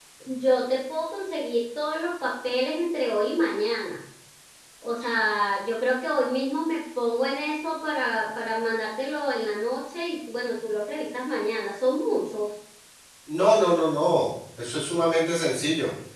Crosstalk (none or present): none